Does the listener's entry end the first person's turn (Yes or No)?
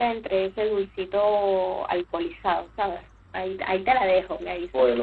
Yes